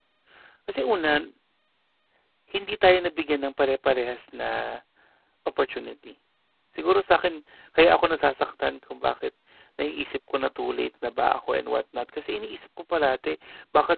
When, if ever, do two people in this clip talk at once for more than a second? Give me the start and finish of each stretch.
none

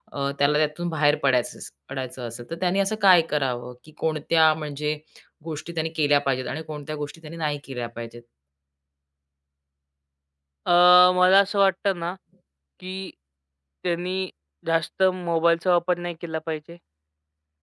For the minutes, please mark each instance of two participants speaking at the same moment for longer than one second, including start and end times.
none

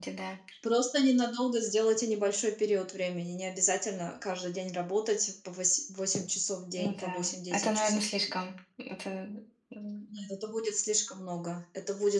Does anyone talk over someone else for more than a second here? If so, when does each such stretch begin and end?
6.8-8.0

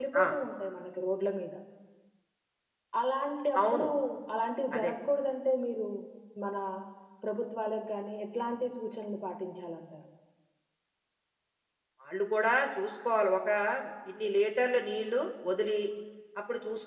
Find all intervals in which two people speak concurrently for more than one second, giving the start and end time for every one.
none

